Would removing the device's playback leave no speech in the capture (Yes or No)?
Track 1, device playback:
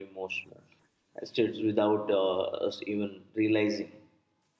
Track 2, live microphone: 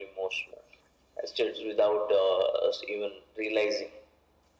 Yes